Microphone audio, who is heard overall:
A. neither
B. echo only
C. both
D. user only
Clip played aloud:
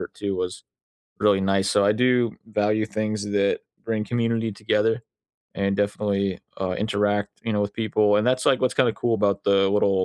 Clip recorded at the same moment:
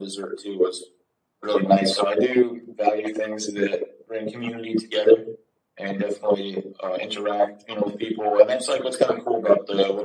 B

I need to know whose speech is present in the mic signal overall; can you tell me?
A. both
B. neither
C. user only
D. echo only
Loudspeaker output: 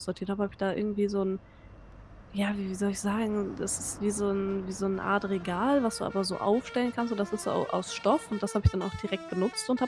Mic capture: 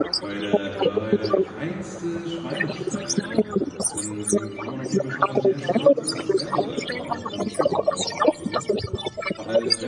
A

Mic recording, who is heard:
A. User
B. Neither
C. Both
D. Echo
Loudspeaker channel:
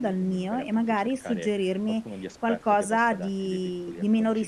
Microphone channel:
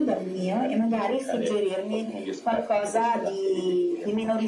D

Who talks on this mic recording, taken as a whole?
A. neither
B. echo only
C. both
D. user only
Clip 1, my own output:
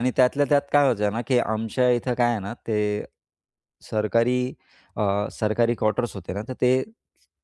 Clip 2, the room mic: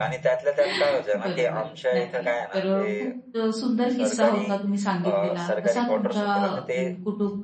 C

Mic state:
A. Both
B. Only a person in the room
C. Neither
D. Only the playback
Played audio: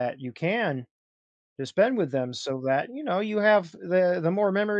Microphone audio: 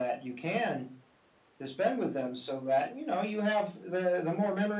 D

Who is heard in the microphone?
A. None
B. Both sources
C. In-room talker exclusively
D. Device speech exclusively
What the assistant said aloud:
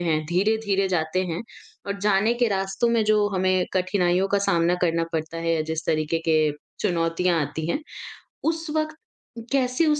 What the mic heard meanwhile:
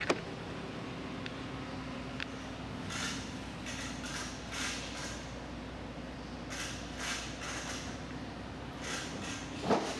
A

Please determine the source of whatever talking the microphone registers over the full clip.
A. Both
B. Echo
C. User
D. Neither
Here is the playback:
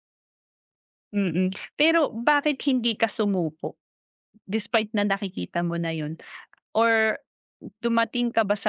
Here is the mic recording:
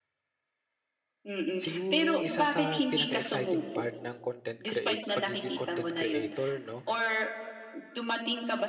A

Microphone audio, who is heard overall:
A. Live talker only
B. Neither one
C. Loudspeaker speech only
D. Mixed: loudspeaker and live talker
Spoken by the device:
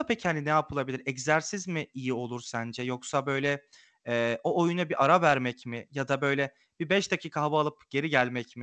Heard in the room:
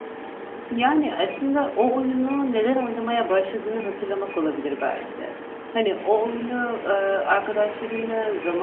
A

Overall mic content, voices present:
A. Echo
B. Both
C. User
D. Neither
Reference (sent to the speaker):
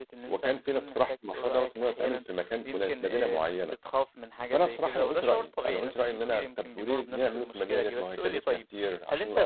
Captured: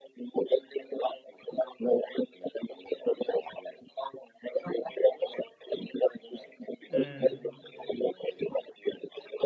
B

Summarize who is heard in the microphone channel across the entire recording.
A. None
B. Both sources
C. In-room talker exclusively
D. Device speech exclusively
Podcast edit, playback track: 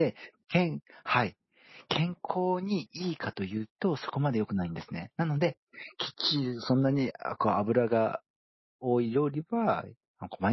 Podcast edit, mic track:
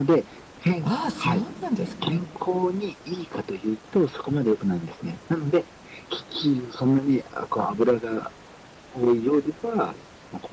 B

